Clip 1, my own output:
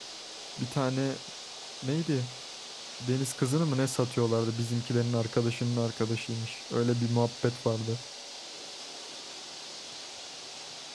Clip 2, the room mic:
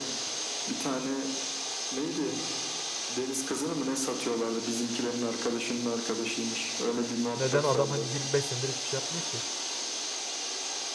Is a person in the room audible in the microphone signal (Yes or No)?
Yes